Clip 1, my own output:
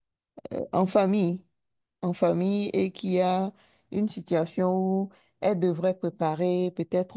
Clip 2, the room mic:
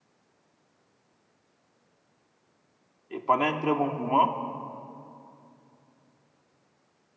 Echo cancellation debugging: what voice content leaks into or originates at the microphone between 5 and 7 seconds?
neither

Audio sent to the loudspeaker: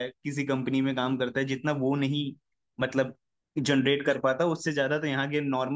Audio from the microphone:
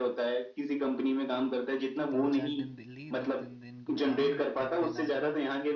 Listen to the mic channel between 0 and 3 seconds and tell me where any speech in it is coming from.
both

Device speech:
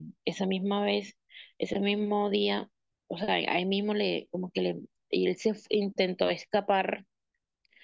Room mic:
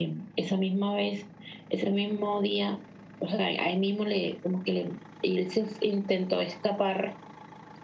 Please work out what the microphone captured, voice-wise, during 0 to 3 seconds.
echo only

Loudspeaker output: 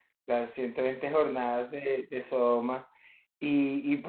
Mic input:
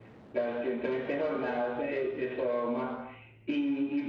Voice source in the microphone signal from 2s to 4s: echo only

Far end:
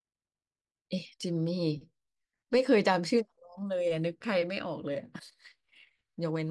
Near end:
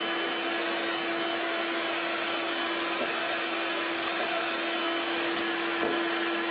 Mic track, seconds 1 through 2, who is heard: neither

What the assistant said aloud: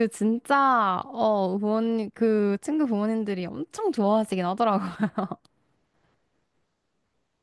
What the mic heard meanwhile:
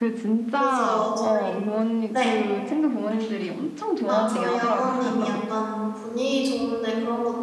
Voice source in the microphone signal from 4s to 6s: both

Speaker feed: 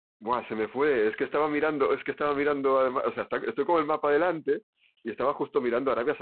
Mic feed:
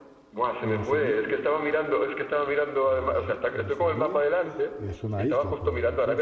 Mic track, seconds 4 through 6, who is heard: both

